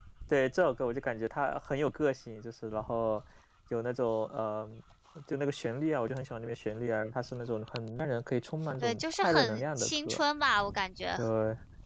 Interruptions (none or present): present